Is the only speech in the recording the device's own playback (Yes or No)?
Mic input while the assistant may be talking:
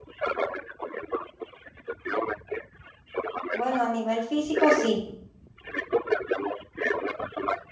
No